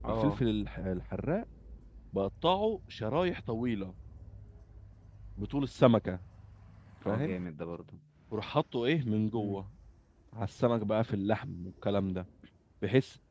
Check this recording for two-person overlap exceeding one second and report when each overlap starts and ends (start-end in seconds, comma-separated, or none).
none